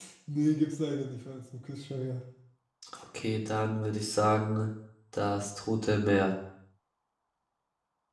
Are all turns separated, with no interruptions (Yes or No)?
Yes